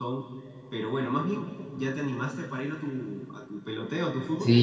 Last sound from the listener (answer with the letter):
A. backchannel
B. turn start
B